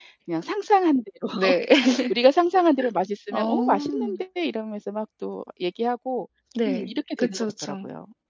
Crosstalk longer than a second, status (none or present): present